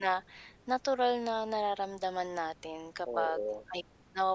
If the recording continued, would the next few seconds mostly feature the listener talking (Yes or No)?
No